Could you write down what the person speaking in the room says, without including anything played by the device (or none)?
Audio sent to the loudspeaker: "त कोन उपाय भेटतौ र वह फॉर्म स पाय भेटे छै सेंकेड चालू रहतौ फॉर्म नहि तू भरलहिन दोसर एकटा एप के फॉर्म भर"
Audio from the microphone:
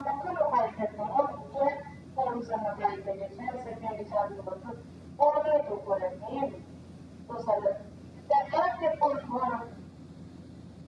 none